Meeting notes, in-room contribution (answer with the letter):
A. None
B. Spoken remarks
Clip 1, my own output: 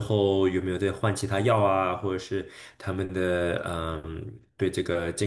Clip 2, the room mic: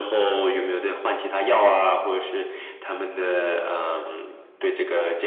A